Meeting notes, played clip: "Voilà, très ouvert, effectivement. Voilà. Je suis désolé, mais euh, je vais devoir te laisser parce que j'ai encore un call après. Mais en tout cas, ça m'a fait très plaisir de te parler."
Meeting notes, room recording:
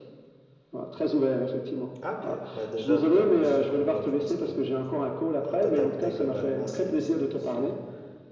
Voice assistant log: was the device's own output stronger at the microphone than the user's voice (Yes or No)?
Yes